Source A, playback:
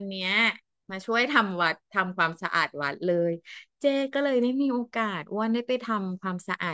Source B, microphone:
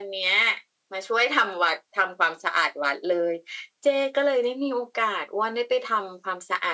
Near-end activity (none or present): none